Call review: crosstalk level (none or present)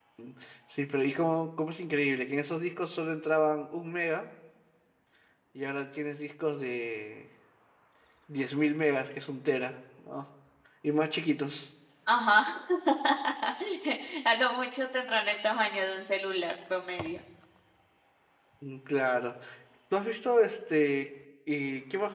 none